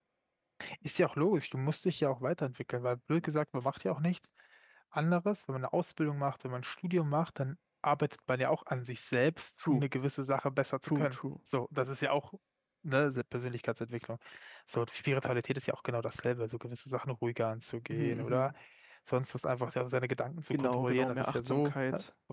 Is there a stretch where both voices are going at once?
Yes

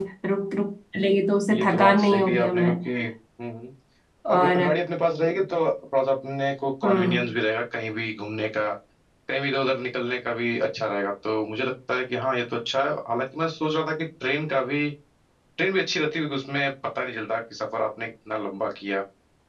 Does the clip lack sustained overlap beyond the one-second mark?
No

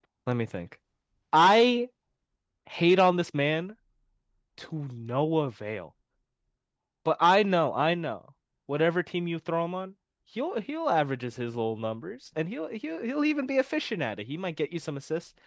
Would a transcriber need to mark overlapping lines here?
No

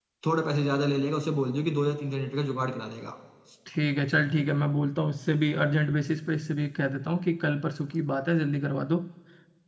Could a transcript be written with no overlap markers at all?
Yes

